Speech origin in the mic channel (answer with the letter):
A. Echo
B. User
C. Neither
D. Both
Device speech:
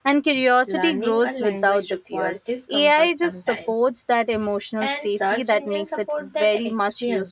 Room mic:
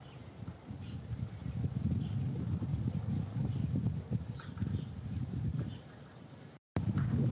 C